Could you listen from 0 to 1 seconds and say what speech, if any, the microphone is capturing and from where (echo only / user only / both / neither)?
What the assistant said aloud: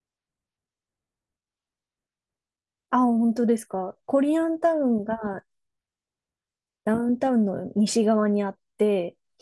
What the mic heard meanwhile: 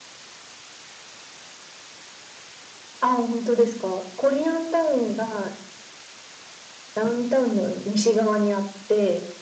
neither